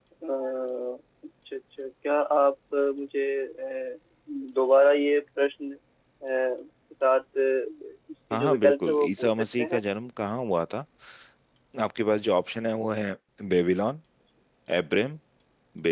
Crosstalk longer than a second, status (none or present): present